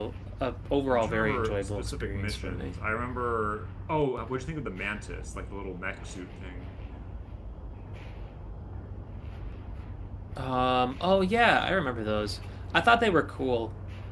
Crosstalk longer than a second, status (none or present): present